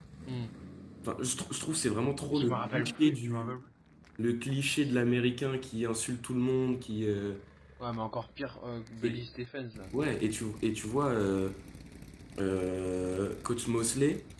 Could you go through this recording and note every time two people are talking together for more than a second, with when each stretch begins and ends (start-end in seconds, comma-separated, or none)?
2.3-3.6